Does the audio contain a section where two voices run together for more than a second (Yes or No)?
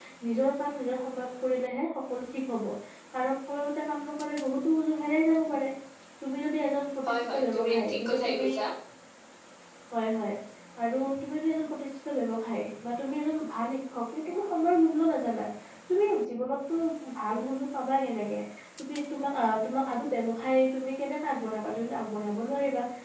Yes